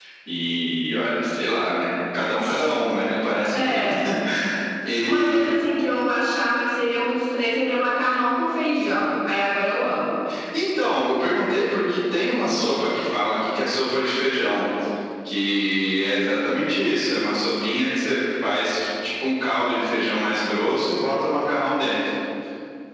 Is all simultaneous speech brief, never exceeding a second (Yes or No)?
Yes